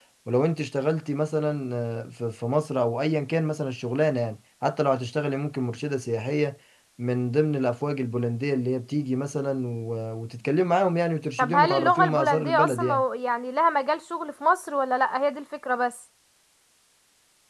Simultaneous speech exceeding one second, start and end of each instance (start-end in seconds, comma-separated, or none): 11.4-13.0